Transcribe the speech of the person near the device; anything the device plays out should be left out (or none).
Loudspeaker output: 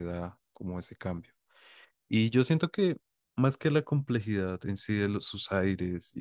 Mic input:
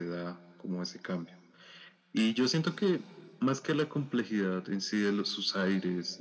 none